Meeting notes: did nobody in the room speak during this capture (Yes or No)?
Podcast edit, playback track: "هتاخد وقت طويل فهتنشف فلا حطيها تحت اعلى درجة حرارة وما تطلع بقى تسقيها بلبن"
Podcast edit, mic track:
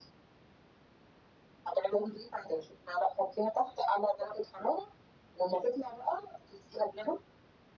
Yes